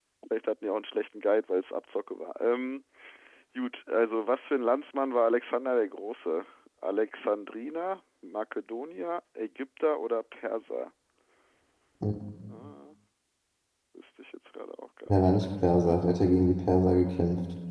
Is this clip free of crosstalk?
No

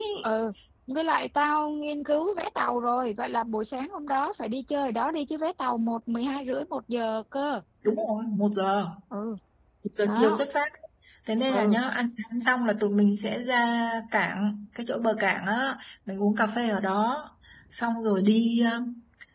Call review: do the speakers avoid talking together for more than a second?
Yes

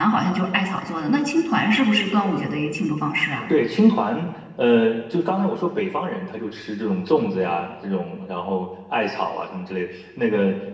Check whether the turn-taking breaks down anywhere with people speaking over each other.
No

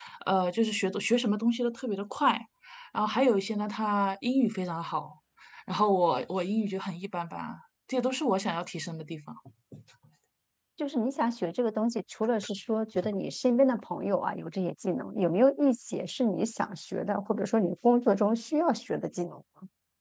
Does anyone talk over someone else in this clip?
No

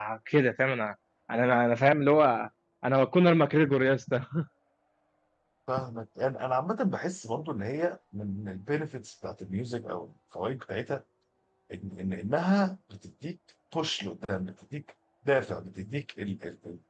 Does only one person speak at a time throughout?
Yes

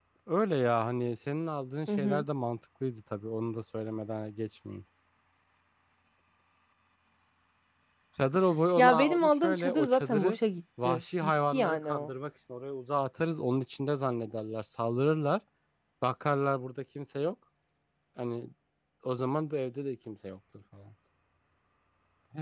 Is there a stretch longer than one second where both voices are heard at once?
Yes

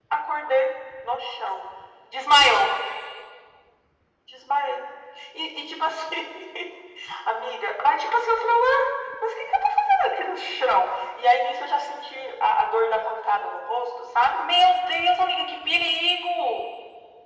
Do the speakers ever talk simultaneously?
No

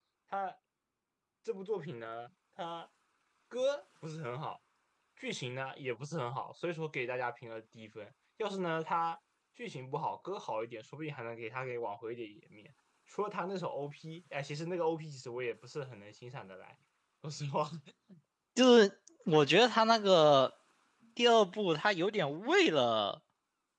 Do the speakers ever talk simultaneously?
No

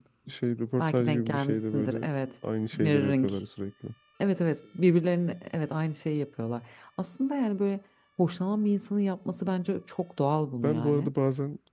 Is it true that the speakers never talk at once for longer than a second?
No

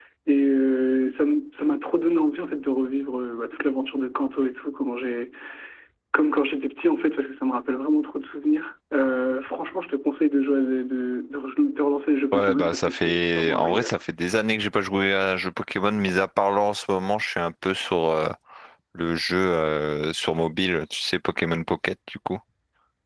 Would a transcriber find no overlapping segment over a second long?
No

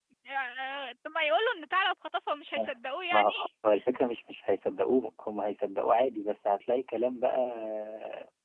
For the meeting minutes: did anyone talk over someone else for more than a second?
No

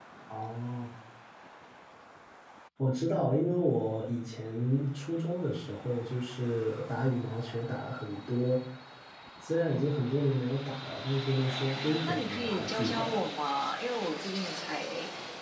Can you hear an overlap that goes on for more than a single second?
Yes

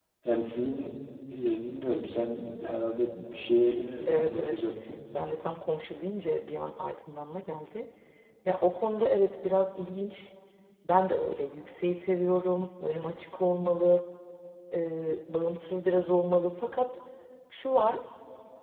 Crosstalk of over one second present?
No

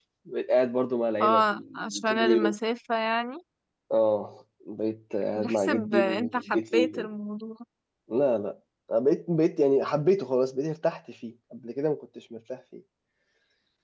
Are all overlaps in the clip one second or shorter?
No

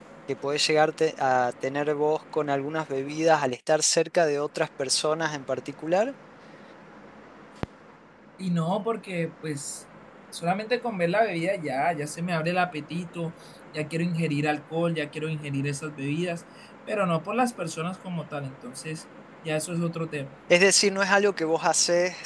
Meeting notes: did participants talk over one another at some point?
No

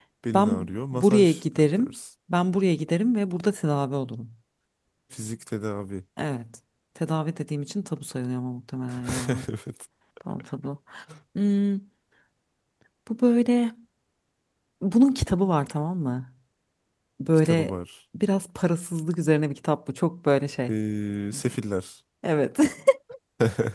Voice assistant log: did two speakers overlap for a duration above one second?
Yes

